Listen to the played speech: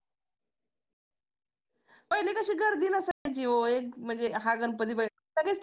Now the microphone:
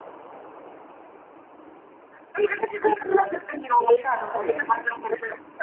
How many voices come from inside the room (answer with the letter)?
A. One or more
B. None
A